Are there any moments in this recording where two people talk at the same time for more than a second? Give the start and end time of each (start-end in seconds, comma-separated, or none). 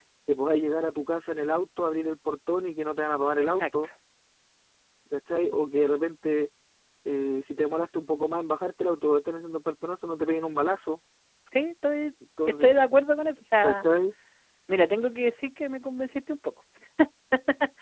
none